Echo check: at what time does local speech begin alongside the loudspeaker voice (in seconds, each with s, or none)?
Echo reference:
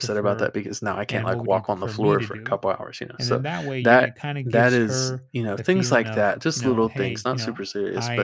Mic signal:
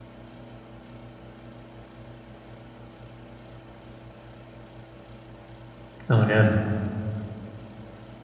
6.1 s